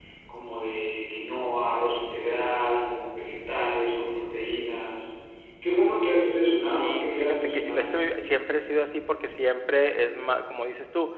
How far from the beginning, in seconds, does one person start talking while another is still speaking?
6.7 s

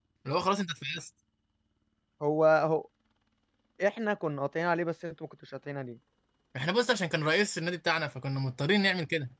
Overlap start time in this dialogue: none

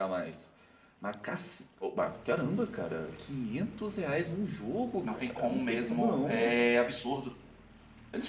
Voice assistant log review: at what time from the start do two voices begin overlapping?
5.0 s

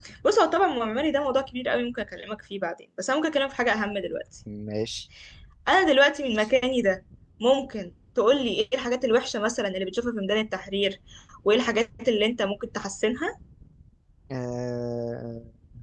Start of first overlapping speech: none

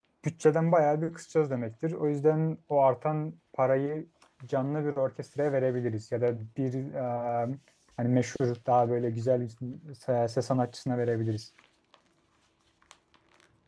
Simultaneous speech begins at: none

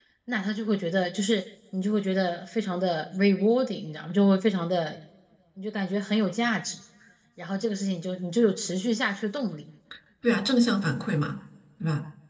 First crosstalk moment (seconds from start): none

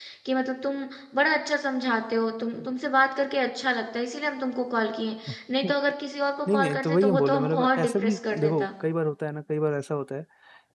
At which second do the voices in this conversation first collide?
6.5 s

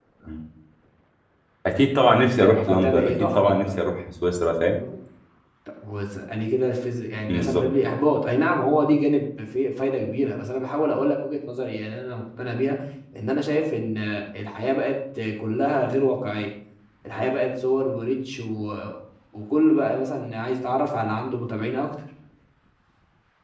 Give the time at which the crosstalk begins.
2.4 s

